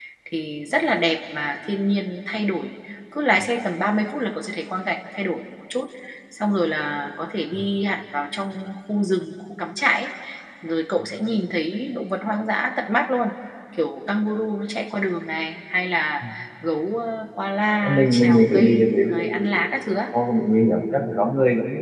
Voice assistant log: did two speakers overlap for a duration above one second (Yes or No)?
Yes